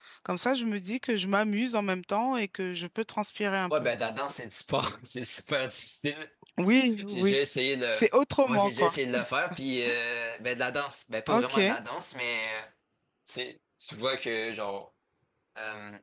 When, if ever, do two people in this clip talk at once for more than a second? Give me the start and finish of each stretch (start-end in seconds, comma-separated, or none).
none